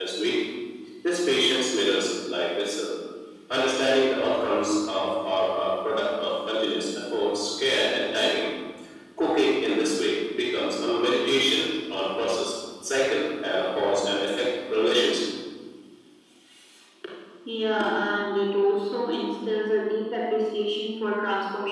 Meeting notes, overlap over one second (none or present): none